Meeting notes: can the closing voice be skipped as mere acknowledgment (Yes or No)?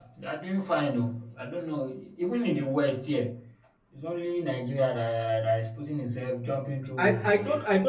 No